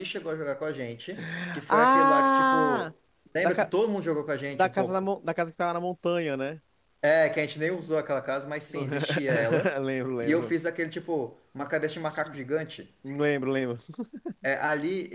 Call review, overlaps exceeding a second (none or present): present